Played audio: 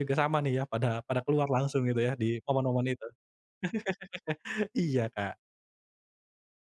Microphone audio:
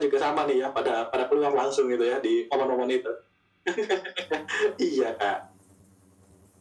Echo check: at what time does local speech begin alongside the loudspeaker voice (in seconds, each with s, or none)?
none